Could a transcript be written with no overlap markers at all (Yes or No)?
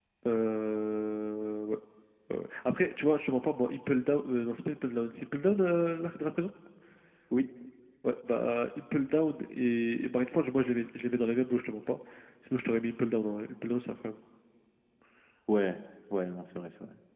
Yes